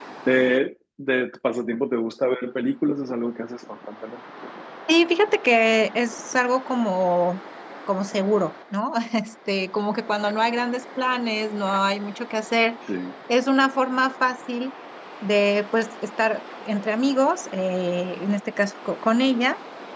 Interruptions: none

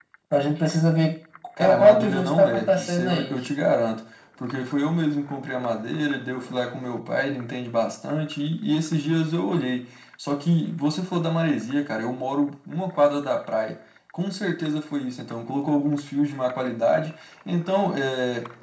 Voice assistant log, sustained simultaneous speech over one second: present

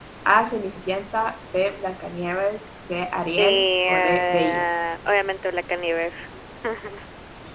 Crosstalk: present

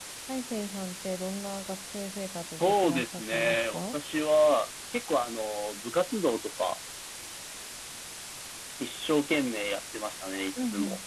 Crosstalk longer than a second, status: present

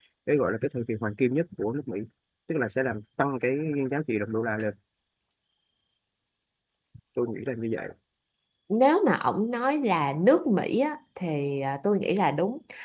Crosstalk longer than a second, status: none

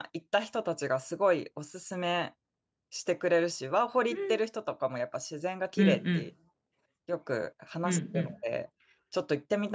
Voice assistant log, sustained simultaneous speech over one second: none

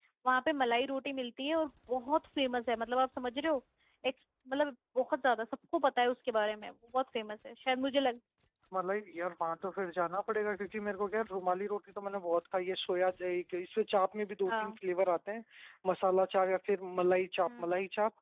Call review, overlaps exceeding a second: none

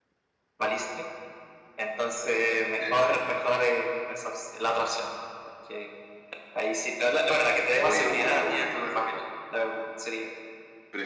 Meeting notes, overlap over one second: present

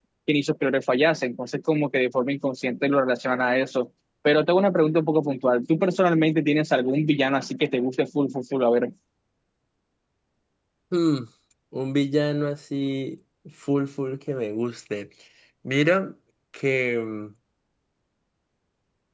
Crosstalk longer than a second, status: none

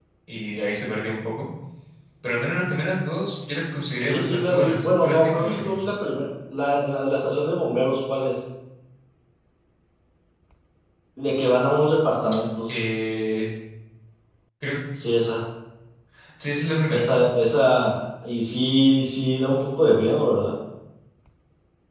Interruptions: present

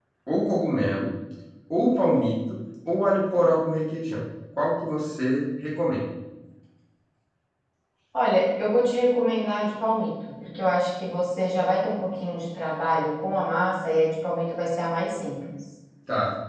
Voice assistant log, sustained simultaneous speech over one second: none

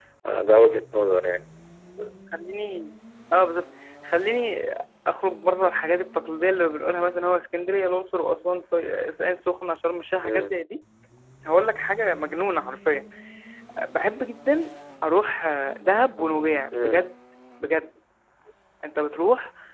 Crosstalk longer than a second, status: none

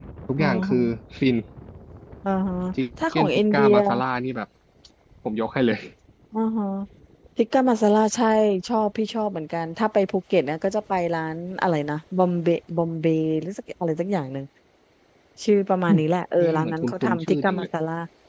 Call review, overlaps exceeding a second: present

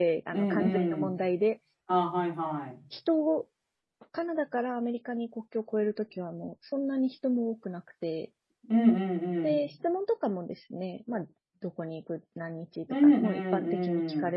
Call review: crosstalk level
present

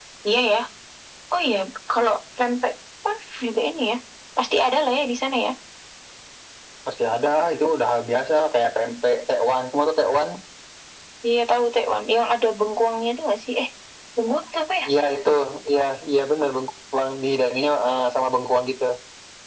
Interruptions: none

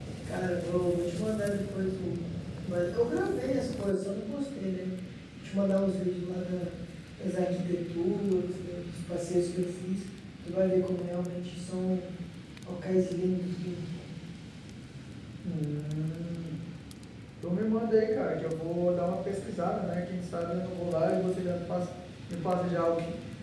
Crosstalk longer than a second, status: none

